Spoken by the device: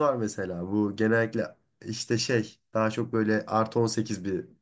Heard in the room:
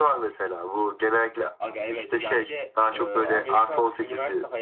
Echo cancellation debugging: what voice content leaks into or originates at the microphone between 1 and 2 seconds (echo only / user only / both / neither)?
both